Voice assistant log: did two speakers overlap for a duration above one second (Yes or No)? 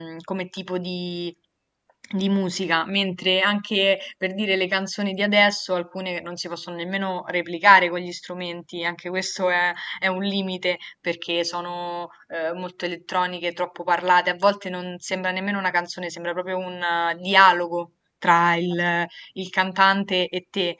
No